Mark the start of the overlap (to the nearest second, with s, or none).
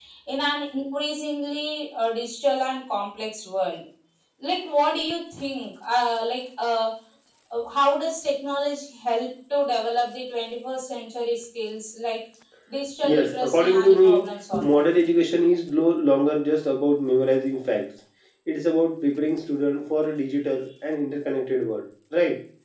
13 s